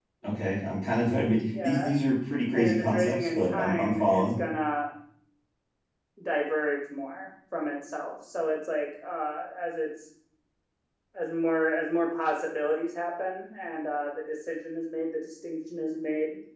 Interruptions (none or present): present